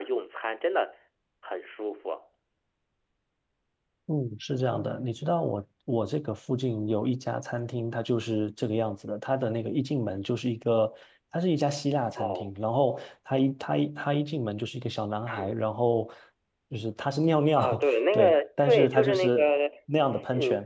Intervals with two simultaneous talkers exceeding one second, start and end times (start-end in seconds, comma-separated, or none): 17.6-19.5